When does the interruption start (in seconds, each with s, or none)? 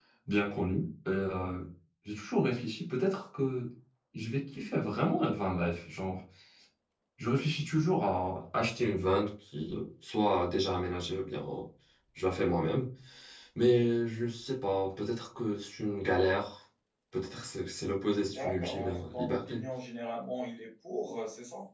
18.3 s